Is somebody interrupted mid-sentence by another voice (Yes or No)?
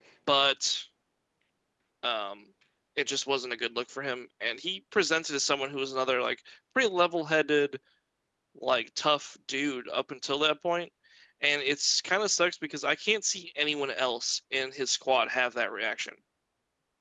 No